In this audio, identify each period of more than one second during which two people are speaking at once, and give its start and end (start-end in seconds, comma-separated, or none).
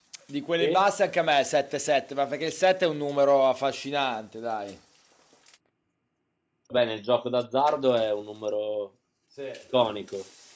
none